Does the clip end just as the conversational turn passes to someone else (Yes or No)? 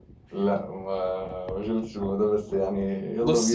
Yes